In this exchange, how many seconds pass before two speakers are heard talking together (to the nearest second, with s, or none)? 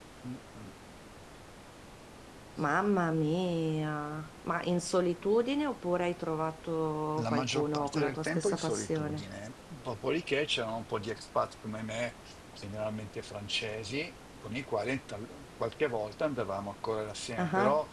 7 s